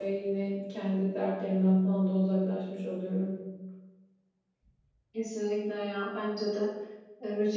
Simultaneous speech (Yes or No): No